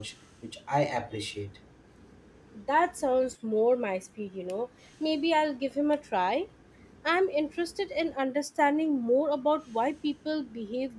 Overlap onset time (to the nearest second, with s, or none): none